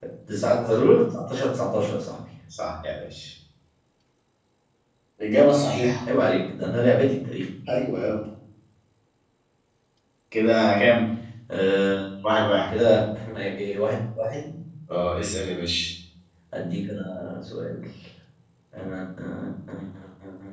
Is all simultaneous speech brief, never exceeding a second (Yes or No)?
Yes